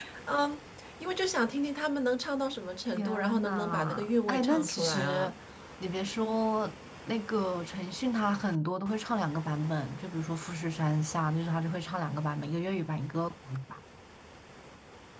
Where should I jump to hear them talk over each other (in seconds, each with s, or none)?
3.0 s